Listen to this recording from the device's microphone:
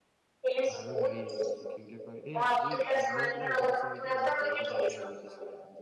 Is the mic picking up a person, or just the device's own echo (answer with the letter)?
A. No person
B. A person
B